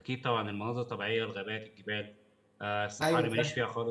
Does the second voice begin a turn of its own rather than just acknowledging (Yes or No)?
No